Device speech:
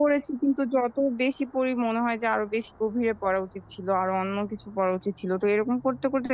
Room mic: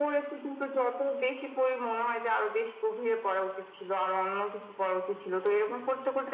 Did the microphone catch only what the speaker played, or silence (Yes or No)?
Yes